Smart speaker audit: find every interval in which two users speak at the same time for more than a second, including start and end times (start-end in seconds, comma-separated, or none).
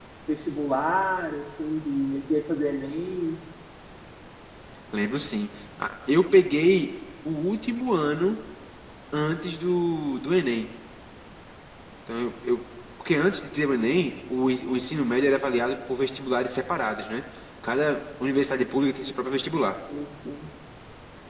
none